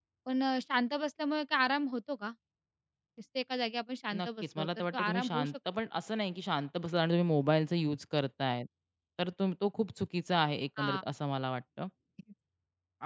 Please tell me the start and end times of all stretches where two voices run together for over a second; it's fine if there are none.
4.2-5.5

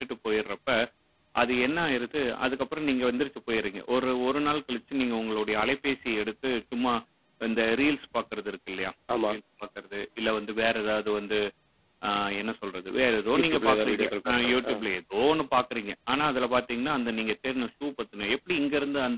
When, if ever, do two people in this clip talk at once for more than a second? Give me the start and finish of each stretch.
13.4-14.7

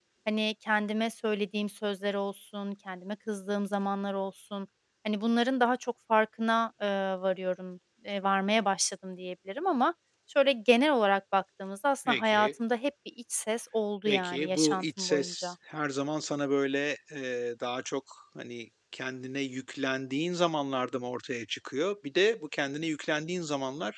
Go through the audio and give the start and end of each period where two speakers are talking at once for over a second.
14.1-15.5

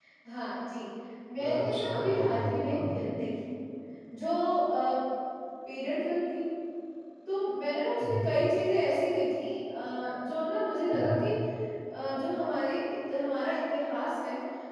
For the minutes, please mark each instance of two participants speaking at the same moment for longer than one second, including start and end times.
1.4-2.9

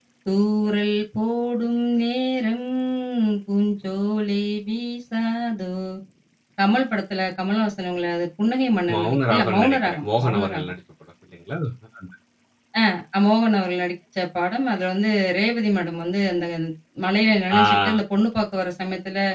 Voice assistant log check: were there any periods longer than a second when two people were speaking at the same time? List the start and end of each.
8.9-10.7

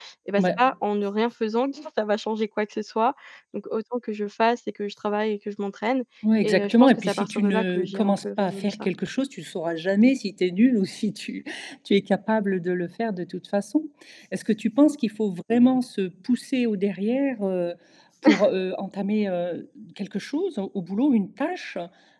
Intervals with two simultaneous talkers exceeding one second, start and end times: 6.4-8.9

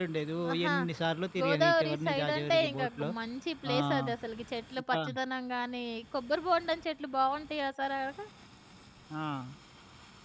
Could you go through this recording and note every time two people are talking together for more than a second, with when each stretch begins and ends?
1.4-3.1

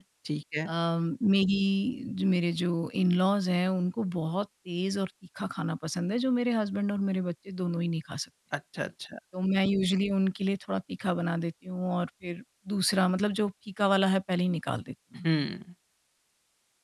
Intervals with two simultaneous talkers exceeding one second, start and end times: none

